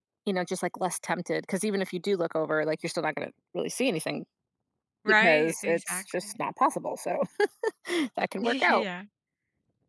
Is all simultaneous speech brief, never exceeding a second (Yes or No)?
No